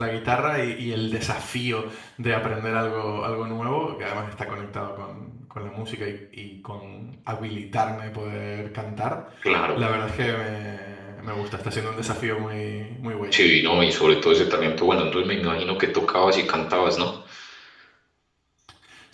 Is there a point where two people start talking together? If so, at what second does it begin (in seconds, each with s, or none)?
none